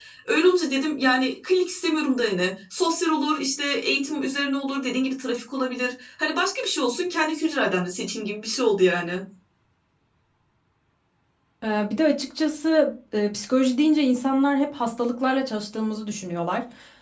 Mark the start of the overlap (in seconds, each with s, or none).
none